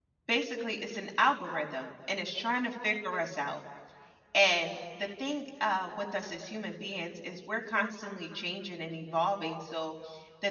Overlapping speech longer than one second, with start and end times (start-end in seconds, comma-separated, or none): none